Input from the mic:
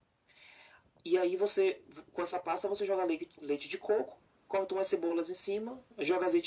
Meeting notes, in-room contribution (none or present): none